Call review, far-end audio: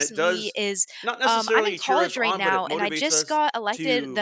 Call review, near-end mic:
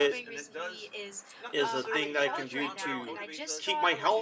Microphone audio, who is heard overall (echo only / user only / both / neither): both